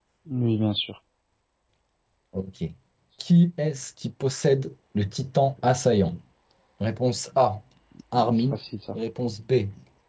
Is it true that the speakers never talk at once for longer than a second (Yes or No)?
Yes